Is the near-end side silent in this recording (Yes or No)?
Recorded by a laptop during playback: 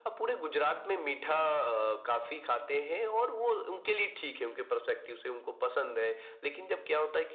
Yes